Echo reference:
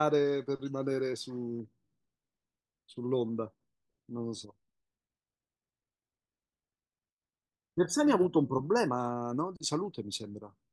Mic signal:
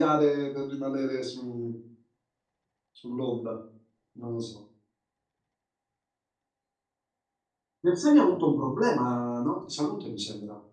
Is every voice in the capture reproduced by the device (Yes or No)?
Yes